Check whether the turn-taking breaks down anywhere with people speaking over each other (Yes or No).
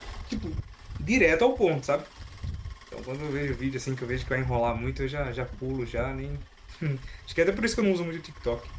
No